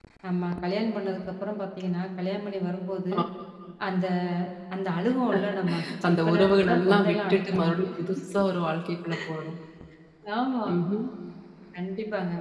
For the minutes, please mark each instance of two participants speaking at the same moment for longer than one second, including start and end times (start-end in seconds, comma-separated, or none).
6.2-7.9